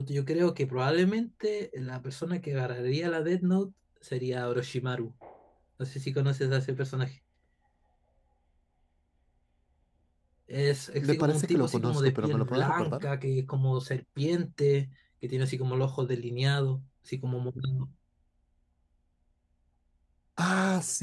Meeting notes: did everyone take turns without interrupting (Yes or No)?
No